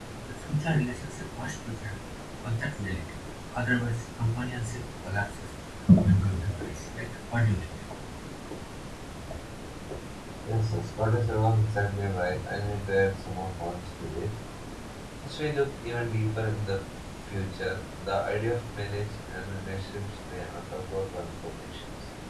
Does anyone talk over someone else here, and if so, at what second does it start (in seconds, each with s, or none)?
none